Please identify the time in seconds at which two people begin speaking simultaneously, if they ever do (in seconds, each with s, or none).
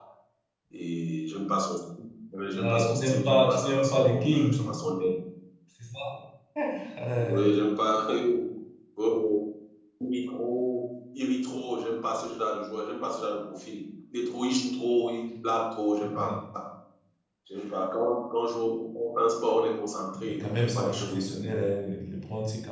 2.6 s